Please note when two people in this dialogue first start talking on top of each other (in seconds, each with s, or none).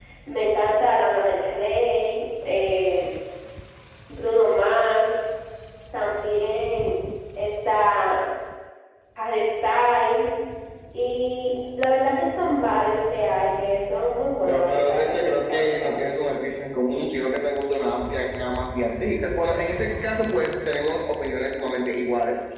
14.5 s